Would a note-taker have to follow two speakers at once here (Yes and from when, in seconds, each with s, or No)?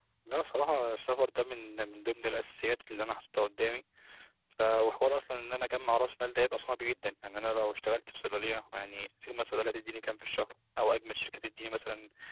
No